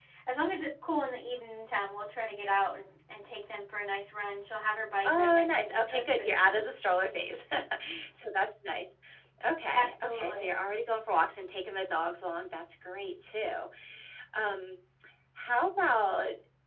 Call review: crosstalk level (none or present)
present